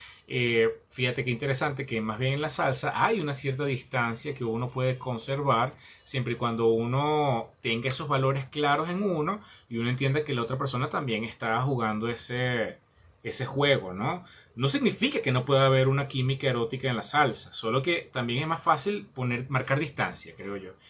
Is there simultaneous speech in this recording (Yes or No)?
No